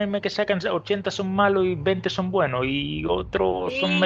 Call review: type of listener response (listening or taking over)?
taking over